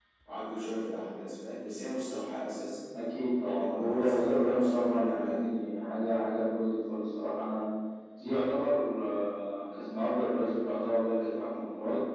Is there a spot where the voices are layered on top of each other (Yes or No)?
Yes